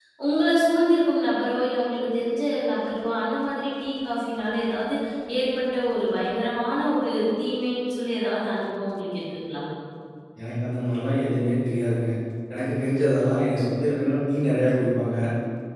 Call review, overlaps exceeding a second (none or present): none